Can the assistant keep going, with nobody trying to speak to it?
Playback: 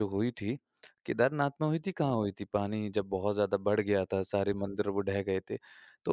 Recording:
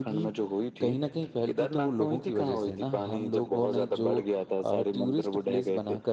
No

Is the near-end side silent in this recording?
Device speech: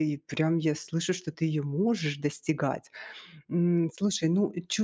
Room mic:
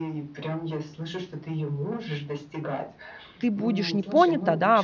No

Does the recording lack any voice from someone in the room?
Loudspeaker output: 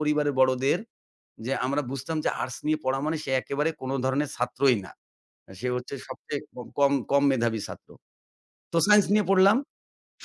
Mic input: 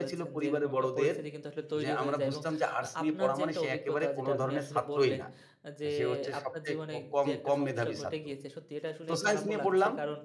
No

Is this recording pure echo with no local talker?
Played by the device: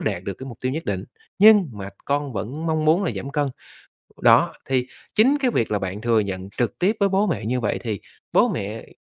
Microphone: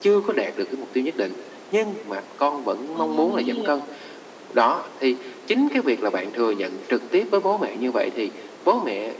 No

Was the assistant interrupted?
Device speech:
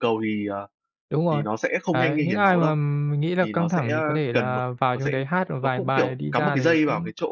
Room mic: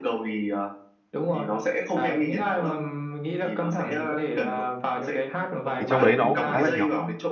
Yes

